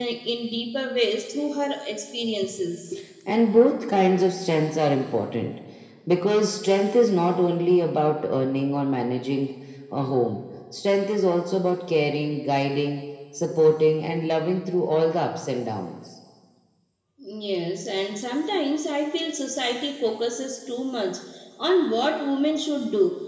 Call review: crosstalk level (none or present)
none